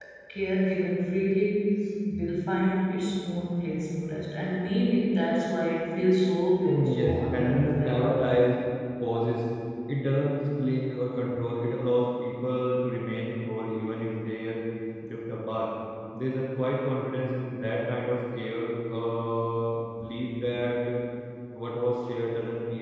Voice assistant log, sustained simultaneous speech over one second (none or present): present